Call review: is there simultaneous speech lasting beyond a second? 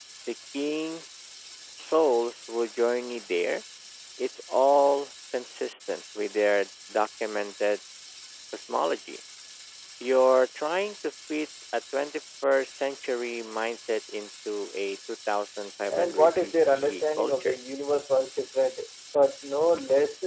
Yes, from 15.9 s

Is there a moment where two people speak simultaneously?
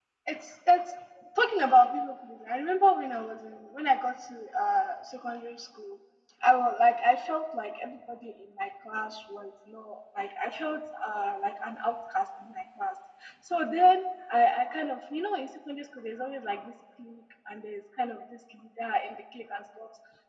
No

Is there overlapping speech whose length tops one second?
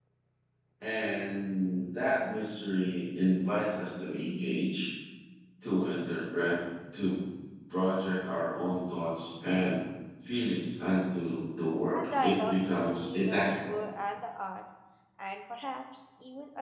Yes, from 11.9 s

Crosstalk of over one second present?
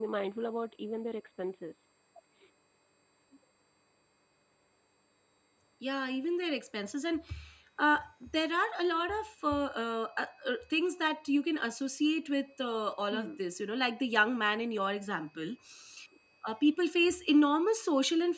No

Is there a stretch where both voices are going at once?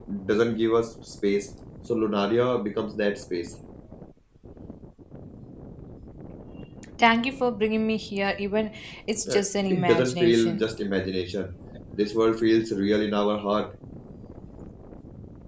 Yes, from 9.3 s

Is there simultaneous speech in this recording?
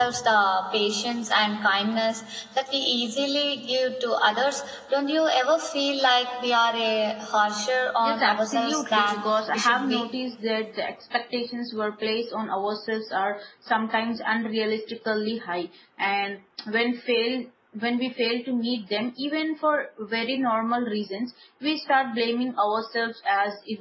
Yes, from 8.0 s

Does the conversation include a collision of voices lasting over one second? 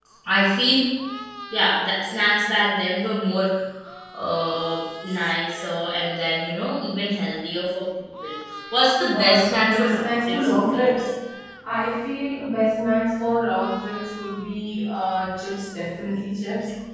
Yes, from 9.1 s

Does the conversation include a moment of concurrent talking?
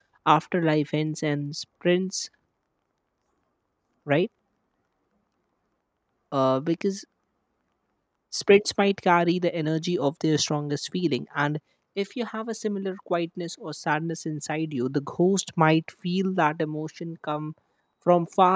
No

